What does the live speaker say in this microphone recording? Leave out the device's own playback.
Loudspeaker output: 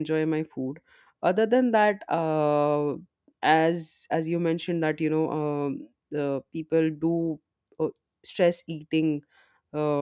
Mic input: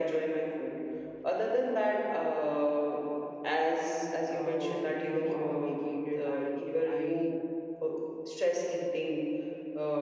uh, very complicated and you know i

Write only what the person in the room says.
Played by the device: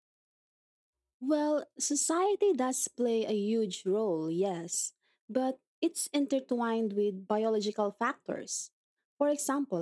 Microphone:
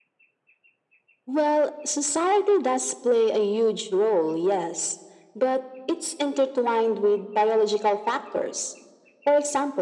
none

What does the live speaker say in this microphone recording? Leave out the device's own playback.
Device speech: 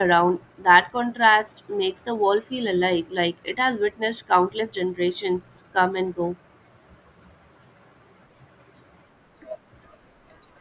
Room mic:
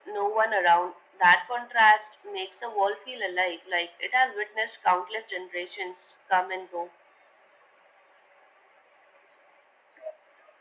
none

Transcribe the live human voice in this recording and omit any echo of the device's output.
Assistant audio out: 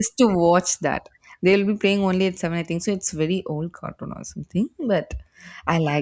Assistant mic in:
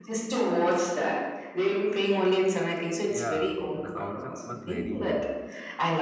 yeah. The concept was very new.

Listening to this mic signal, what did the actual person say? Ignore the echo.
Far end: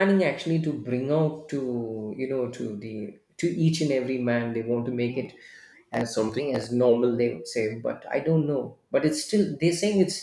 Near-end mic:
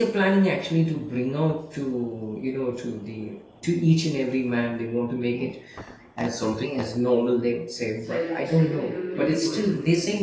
It's like stepping into a 3D world.

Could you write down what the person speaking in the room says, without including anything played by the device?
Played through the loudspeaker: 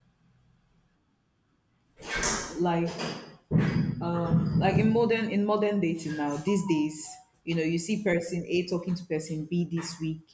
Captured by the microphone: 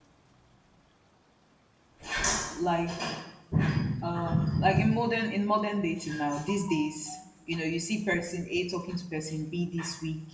none

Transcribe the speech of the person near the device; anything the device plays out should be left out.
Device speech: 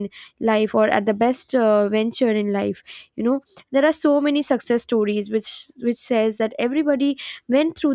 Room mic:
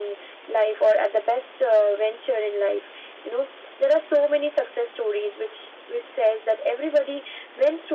none

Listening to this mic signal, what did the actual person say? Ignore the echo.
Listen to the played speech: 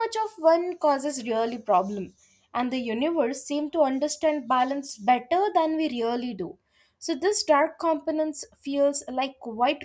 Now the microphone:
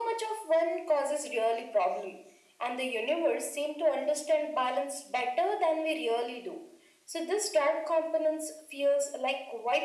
none

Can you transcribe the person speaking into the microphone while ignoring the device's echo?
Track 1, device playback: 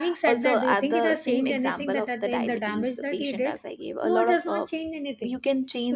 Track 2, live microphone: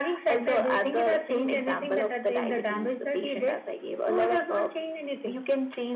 none

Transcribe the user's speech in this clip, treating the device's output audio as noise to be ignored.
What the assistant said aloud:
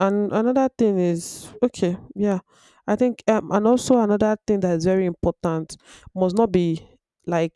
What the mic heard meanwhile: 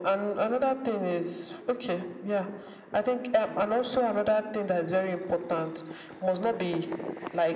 none

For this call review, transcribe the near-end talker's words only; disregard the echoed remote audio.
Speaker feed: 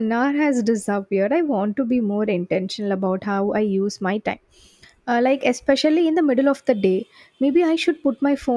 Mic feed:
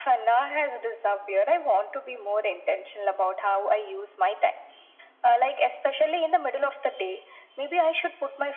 none

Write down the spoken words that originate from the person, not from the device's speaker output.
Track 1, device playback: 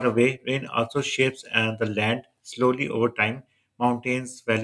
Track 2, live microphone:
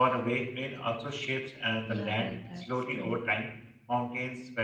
Yeah, right, that's true.

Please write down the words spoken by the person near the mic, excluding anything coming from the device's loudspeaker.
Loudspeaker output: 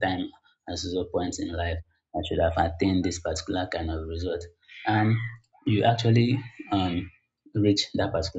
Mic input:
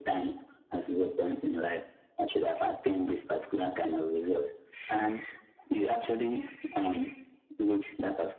none

